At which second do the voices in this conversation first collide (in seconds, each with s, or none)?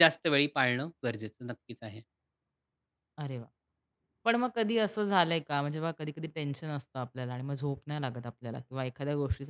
none